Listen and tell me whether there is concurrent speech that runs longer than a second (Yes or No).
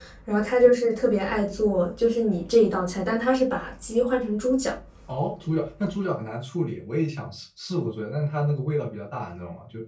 No